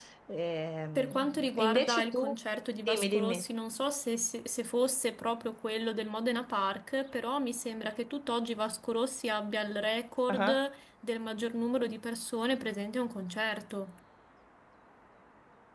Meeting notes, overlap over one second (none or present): present